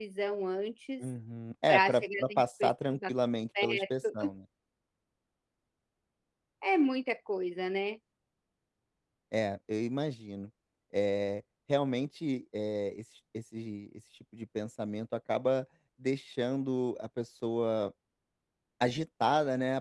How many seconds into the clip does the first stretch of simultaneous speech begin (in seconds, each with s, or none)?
1.7 s